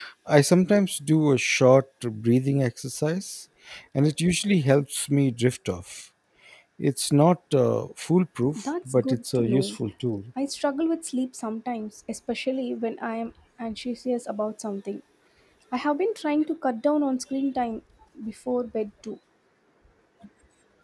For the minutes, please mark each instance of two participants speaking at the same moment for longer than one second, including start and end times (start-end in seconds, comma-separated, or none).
8.6-9.8